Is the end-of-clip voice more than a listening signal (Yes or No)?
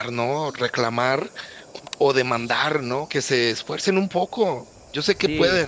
Yes